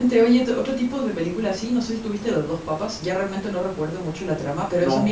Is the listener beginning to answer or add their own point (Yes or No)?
No